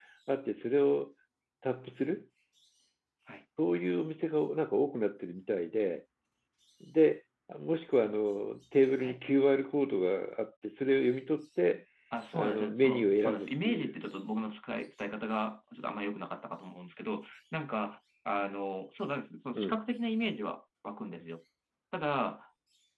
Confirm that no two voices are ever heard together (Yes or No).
No